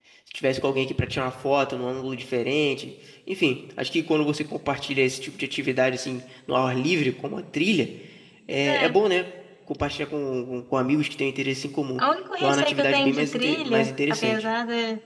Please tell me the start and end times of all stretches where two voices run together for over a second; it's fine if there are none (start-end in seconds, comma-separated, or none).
12.4-14.5